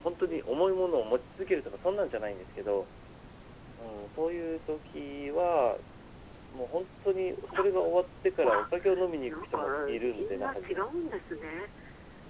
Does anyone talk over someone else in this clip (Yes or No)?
Yes